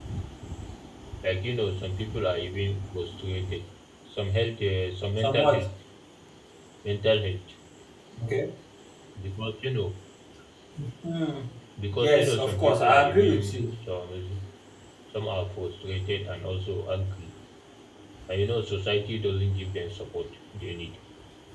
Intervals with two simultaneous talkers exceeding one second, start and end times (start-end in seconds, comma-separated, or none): 11.9-13.7